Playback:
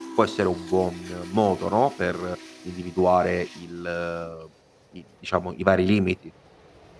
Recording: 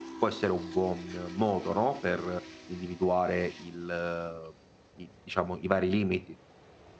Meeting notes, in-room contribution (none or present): none